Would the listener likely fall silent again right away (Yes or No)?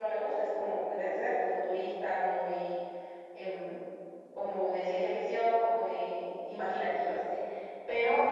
No